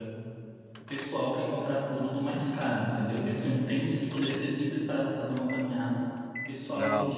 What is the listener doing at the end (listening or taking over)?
listening